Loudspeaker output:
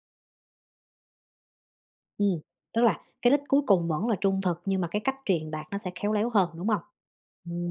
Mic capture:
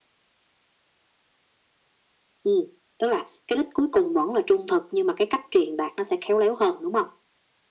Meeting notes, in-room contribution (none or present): none